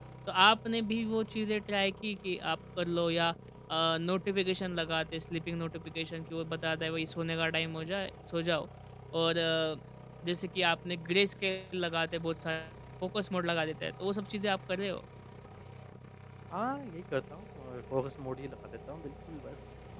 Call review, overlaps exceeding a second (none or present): none